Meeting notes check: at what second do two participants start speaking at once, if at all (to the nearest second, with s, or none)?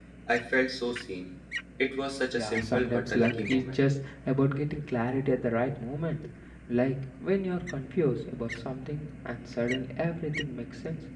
2 s